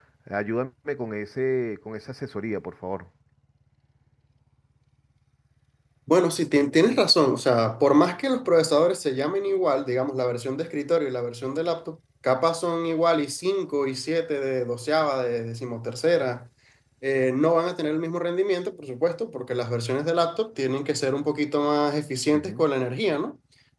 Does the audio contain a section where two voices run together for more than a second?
No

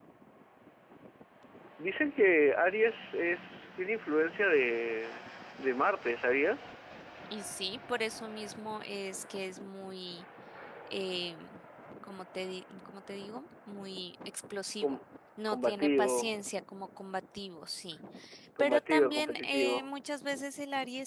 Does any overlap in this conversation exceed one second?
Yes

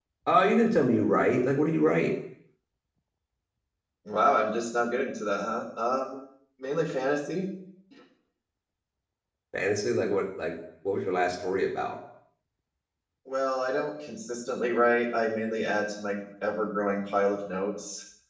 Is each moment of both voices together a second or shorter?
Yes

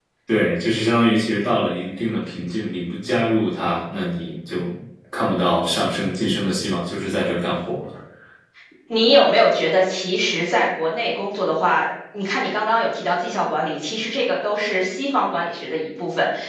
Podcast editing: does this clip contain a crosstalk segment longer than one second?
No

